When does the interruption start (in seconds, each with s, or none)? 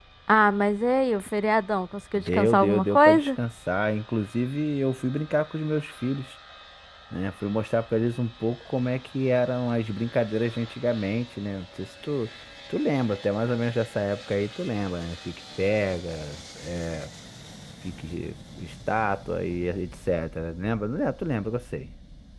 2.2 s